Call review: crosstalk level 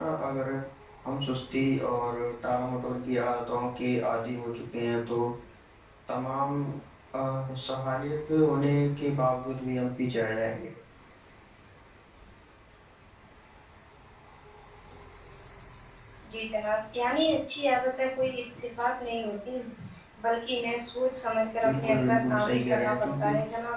present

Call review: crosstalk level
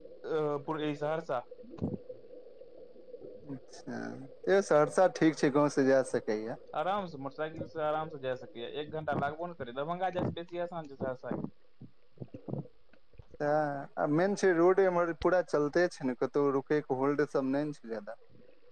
none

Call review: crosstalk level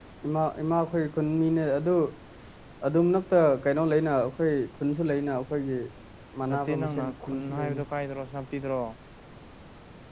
present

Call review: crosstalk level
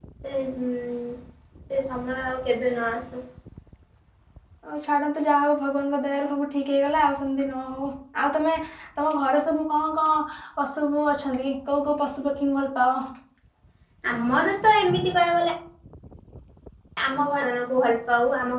none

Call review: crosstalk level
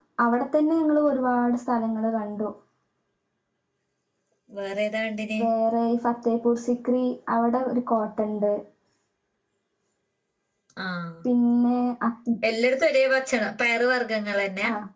none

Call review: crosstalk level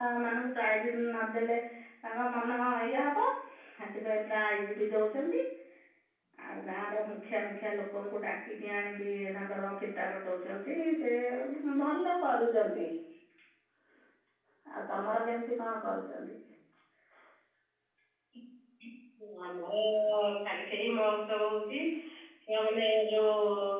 none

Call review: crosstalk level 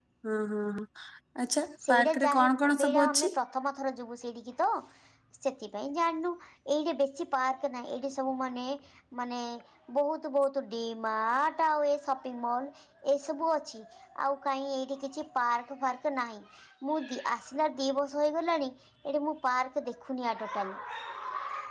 present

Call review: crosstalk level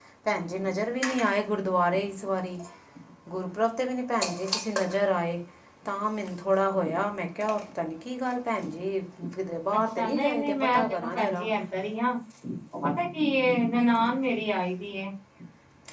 present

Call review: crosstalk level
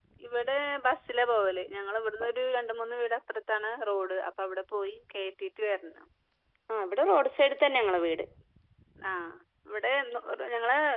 none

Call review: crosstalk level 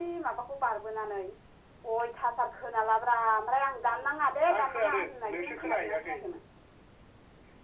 present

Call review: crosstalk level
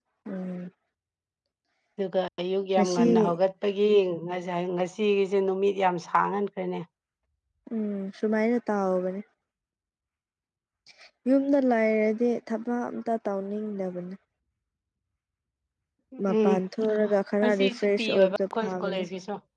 present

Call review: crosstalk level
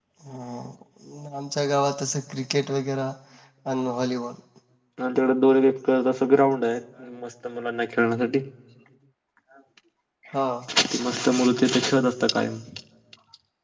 none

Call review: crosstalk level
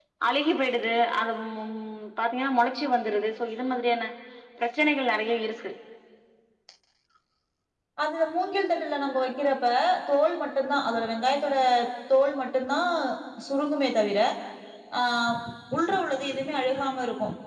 none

